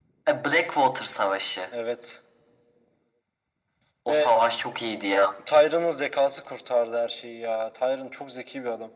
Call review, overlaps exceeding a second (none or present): none